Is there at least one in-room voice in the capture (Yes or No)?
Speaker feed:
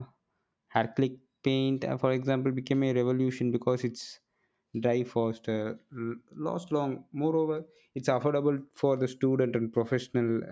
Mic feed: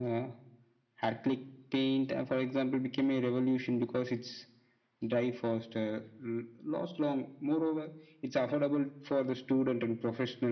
No